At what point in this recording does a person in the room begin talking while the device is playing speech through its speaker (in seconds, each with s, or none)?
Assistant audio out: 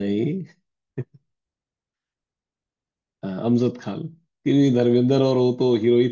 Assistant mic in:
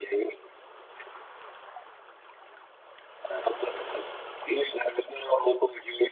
none